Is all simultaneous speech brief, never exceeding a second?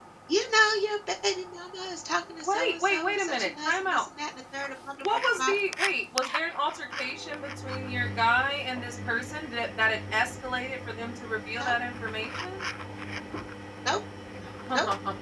No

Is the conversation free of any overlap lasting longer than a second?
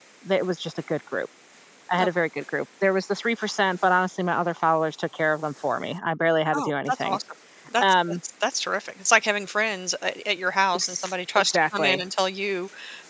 No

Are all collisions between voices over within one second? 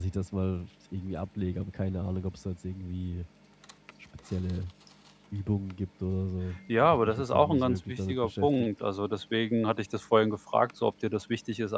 No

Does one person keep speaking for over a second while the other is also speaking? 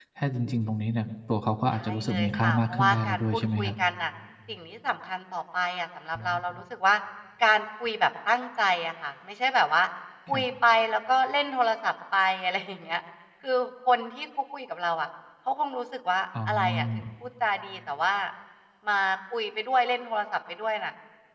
Yes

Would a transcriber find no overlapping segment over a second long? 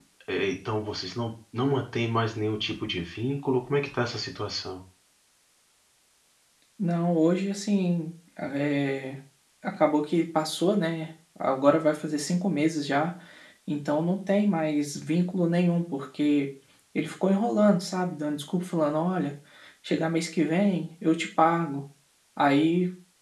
Yes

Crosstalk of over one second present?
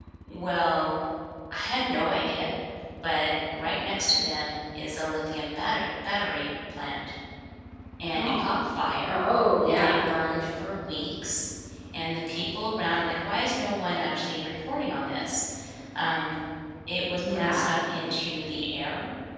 No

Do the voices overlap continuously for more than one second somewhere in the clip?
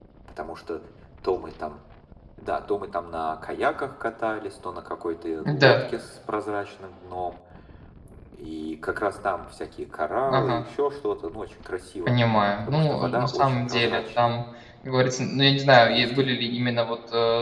Yes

